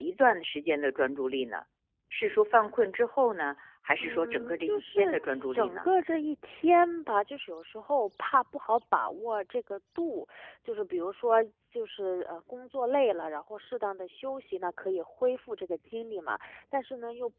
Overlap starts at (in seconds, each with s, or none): 4.0 s